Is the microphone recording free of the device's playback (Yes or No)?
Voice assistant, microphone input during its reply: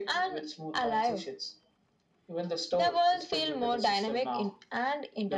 No